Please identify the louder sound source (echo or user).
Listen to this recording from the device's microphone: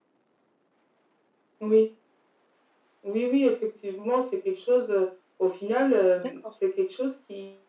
echo